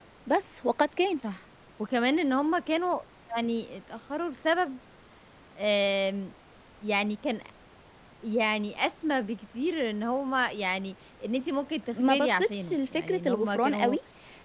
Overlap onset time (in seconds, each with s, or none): 11.9 s